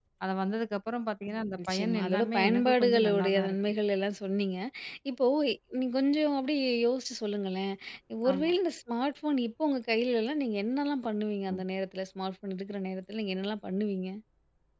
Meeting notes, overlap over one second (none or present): present